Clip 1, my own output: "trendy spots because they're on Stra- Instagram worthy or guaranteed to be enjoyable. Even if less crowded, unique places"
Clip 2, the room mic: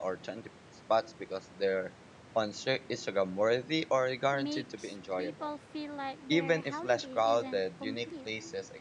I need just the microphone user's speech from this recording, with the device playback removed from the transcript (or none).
makes people feel like their holiday isn't complete